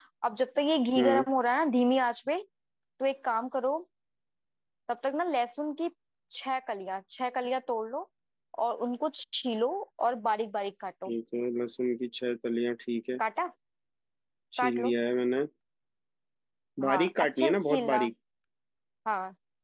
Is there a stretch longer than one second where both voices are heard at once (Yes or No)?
Yes